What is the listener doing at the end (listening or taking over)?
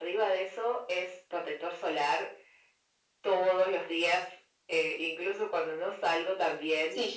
listening